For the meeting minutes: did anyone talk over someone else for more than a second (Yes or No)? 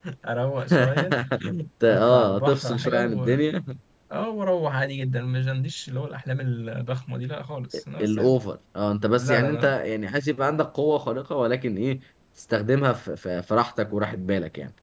Yes